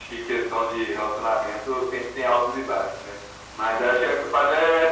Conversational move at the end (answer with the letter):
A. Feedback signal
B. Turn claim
A